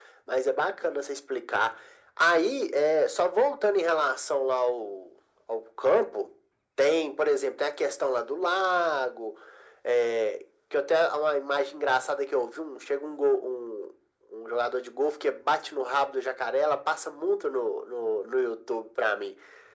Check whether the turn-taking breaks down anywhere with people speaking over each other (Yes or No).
No